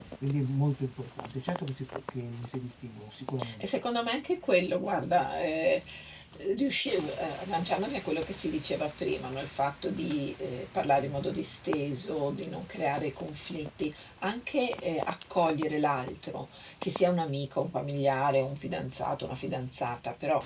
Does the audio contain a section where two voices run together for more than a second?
No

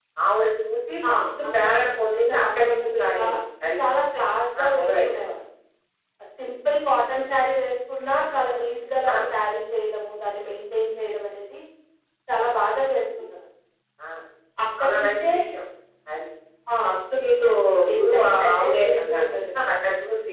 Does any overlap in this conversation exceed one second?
Yes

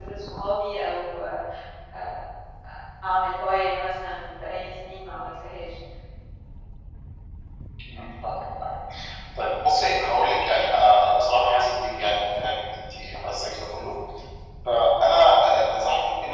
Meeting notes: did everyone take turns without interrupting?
Yes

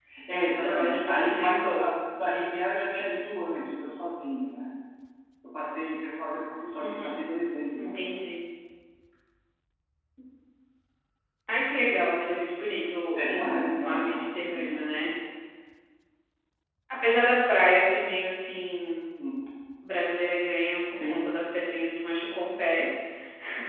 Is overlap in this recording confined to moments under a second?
No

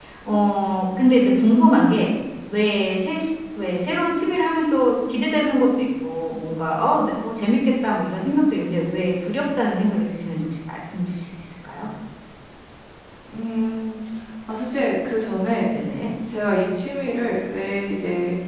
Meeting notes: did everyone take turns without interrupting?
Yes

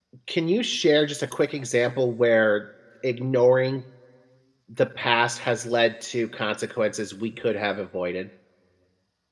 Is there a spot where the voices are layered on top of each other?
No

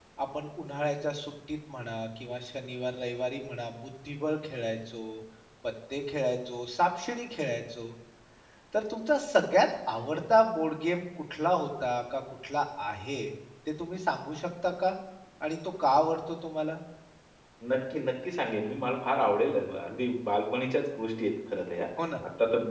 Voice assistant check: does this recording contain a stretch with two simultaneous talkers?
No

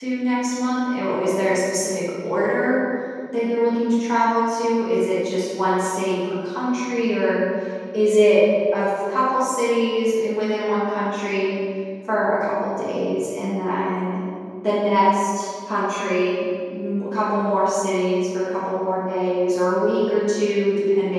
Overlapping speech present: No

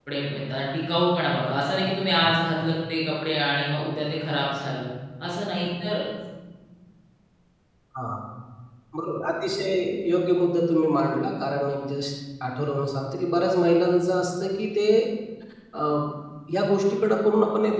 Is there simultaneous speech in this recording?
No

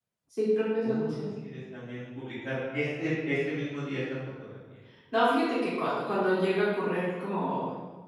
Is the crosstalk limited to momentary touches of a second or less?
Yes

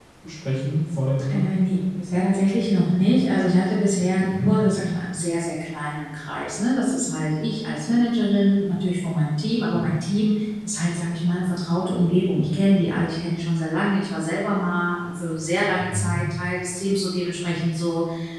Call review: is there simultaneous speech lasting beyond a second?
No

